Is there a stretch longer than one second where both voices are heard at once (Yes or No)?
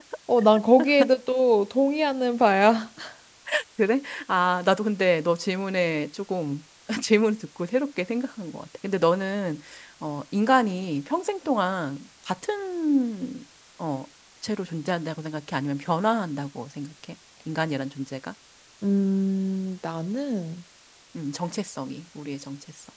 No